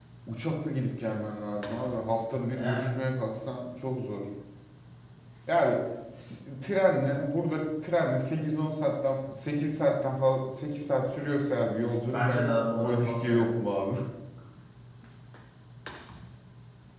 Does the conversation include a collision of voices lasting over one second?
Yes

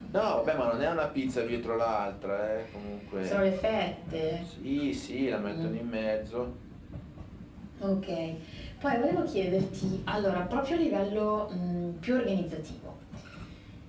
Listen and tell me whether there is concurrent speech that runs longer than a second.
No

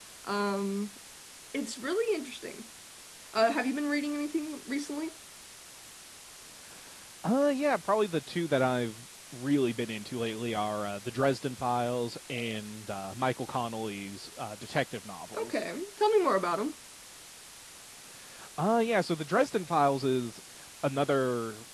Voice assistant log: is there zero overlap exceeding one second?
Yes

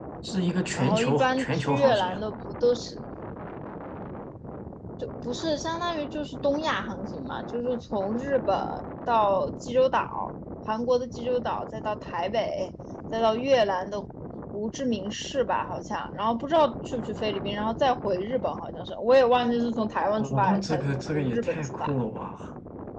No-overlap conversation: No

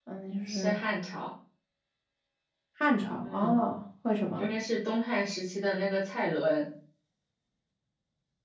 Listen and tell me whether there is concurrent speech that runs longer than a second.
No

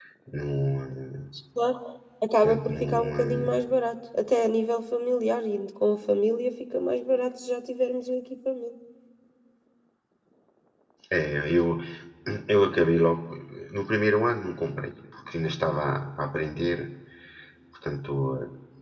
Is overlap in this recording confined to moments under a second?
No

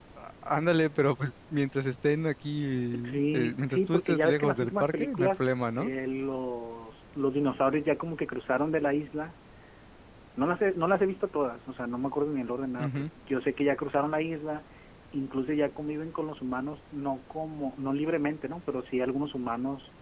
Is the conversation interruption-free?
No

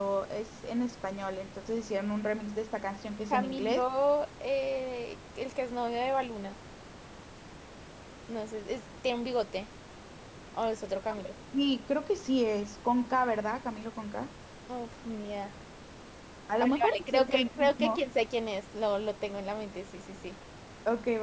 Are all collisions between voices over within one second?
No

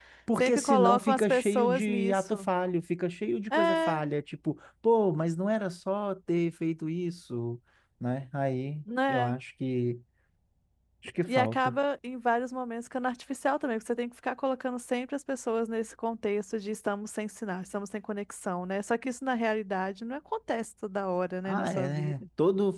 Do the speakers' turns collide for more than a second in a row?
Yes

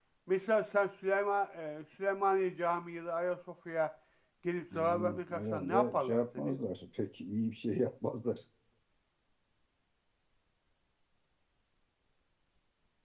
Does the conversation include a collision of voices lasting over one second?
Yes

